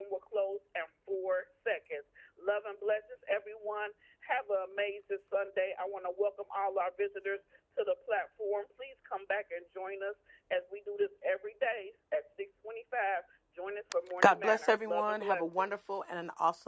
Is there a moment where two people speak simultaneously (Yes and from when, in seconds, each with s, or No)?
Yes, from 14.2 s